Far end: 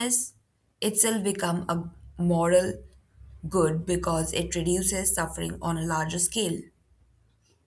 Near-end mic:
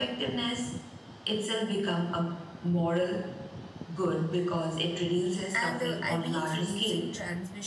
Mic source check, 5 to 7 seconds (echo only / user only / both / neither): both